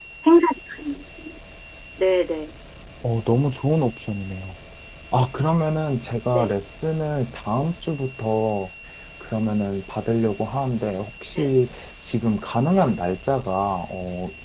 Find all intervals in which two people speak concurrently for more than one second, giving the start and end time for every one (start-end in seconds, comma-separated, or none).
none